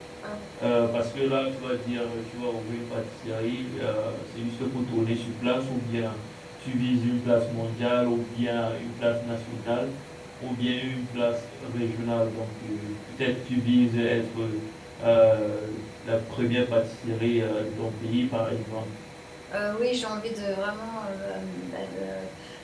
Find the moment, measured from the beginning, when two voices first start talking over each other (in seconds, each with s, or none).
none